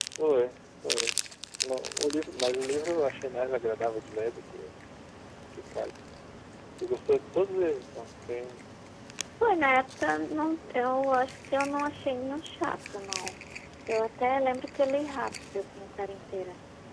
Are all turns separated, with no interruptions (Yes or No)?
Yes